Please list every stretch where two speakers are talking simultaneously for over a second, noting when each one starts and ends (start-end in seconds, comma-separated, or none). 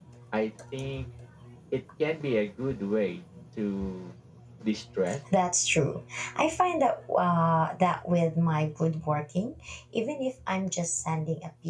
none